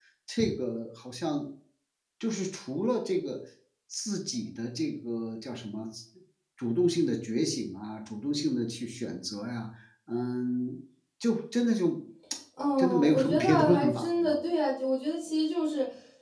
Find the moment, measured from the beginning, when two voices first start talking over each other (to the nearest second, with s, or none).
13 s